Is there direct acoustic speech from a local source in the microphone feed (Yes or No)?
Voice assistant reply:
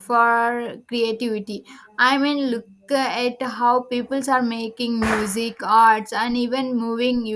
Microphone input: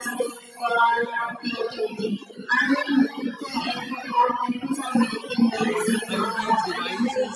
Yes